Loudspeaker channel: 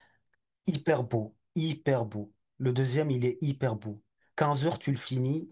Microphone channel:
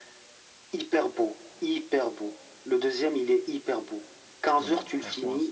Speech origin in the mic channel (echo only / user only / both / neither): both